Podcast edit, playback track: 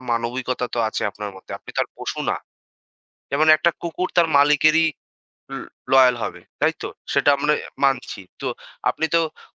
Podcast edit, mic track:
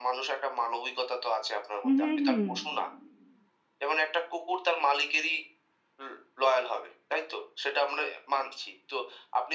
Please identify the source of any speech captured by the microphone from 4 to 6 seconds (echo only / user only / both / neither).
echo only